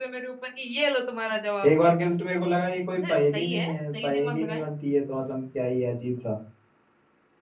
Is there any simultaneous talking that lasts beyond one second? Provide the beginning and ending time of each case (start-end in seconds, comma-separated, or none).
3.0-4.6